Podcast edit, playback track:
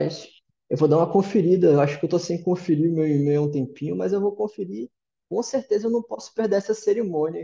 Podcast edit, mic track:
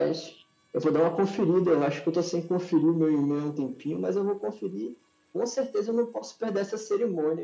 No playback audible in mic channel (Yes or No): No